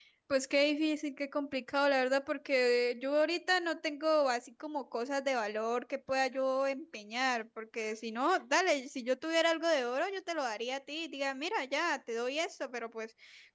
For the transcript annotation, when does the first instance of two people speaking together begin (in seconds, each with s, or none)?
none